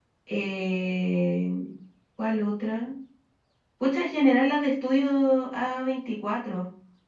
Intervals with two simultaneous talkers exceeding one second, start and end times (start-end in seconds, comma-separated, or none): none